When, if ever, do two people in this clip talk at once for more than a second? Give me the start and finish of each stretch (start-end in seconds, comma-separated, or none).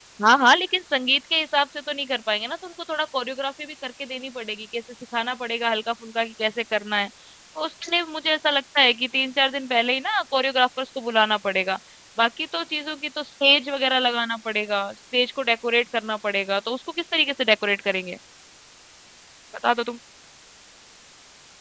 none